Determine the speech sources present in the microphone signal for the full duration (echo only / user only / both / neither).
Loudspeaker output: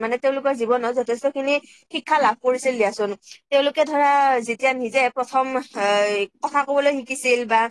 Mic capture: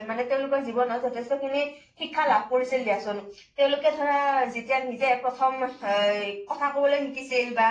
echo only